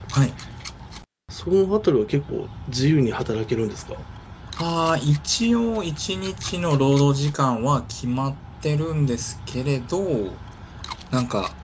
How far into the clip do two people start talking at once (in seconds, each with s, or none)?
none